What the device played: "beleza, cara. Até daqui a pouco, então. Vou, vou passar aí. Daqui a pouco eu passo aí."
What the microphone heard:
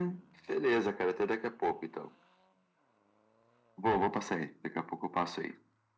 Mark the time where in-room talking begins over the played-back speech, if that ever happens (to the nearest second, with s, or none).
none